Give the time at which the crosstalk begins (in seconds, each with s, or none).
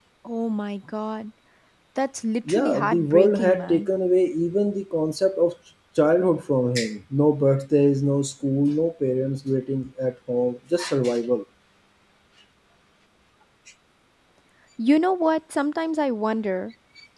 2.5 s